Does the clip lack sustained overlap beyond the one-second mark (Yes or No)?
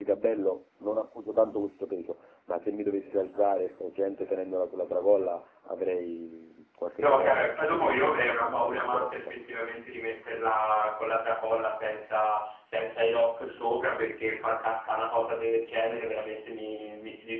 No